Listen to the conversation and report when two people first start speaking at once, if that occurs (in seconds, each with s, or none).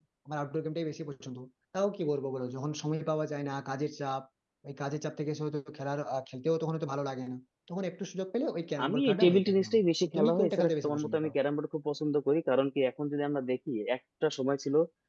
8.8 s